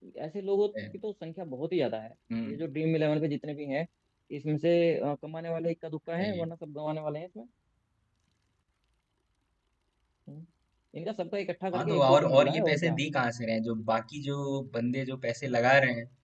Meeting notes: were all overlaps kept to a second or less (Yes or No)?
No